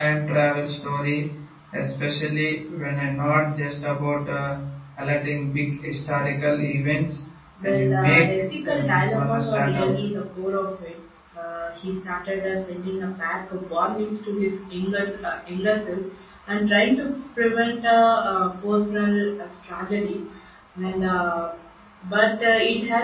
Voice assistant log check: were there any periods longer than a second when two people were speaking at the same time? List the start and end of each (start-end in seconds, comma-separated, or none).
7.6-9.9